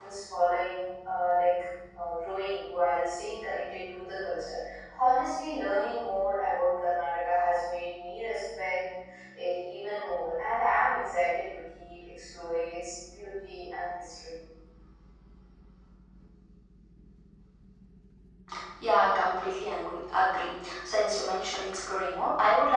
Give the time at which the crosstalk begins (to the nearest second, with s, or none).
none